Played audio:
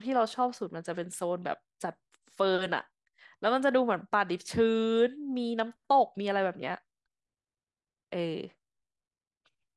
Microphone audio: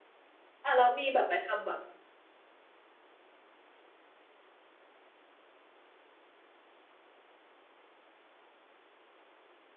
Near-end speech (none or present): present